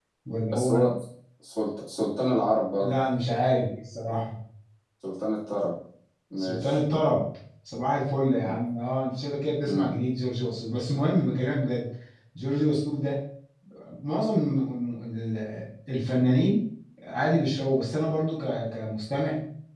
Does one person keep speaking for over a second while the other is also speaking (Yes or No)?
No